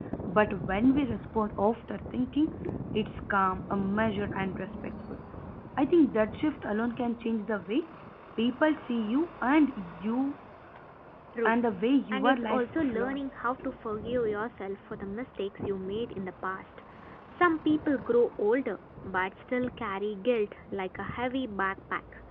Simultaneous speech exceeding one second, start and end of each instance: 12.1-13.4

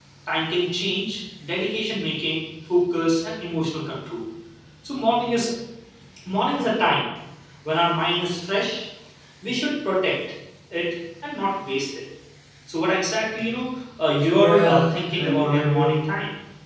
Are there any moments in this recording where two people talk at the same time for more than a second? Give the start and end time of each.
14.4-16.0

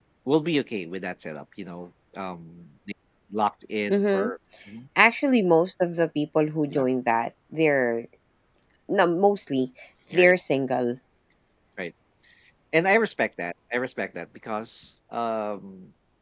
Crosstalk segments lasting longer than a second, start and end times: none

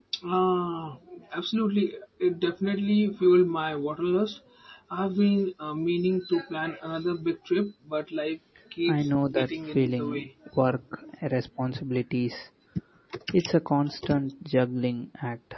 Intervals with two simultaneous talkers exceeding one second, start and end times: 8.9-10.3

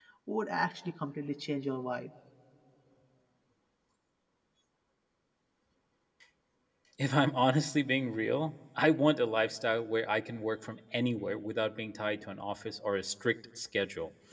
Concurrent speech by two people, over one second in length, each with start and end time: none

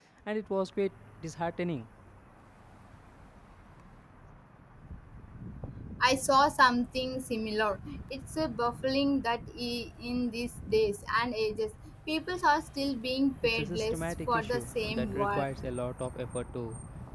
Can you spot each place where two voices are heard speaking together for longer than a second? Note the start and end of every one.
13.6-15.5

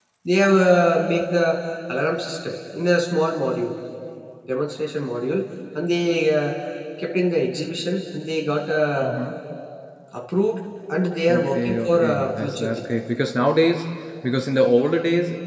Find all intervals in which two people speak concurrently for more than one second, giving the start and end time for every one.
11.3-12.8

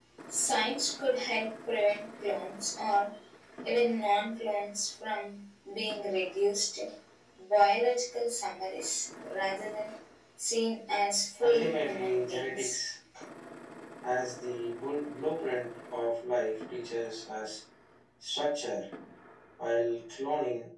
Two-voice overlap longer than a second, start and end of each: 11.4-12.8

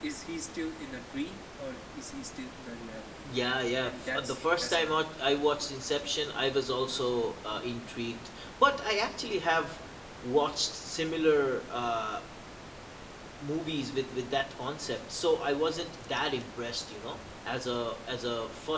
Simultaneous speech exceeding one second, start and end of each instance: 3.8-5.1

